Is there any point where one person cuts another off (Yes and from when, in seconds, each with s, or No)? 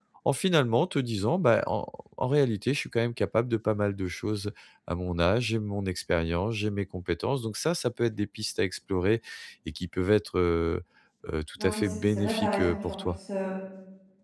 Yes, from 11.6 s